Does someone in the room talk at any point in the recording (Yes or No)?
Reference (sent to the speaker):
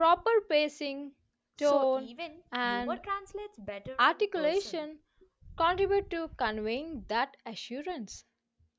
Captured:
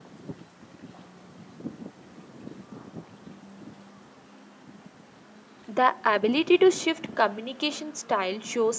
Yes